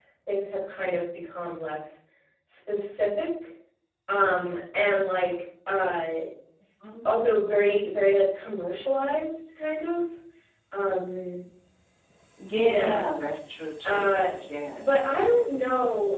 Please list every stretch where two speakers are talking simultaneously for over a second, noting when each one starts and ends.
none

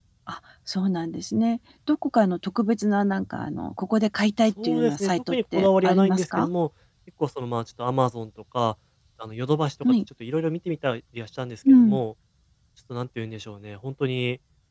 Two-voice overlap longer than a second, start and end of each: 4.6-6.5

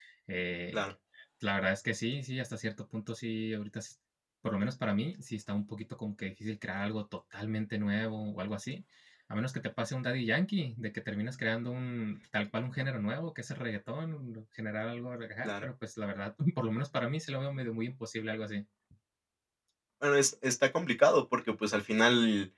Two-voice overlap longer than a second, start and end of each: none

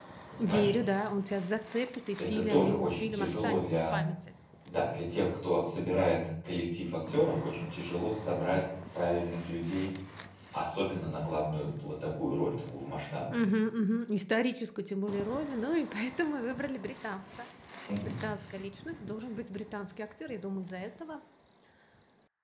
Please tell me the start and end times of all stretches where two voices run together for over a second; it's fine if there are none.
2.3-4.0

